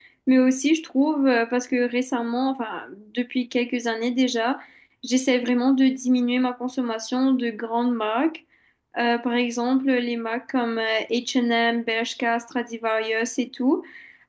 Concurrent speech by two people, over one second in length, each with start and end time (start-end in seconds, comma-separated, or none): none